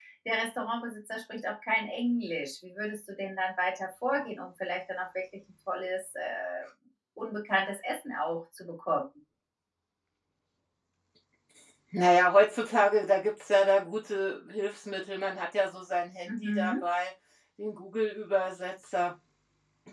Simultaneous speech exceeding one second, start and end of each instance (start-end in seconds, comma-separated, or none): none